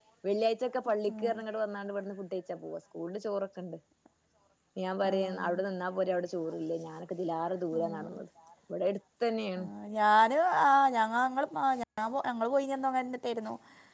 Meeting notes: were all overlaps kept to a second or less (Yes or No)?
Yes